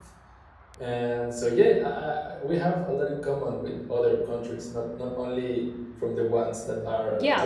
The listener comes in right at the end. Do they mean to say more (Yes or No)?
Yes